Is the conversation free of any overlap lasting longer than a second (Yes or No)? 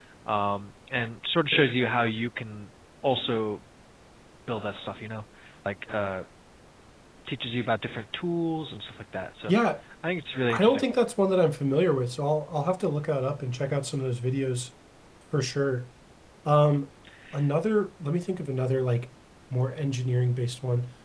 Yes